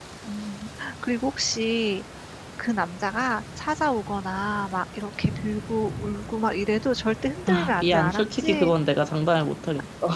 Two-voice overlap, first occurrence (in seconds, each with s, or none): 7.5 s